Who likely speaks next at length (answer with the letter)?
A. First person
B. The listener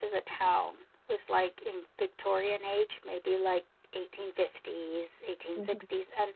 A